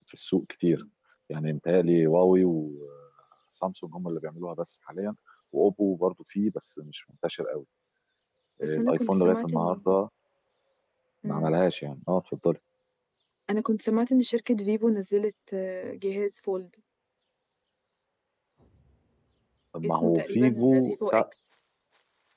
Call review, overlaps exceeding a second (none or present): present